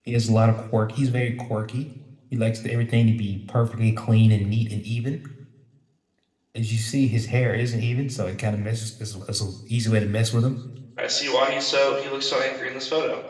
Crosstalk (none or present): none